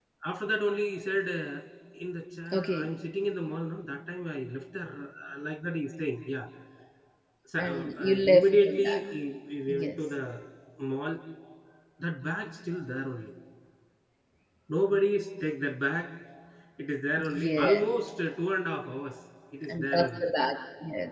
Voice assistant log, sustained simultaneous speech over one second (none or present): present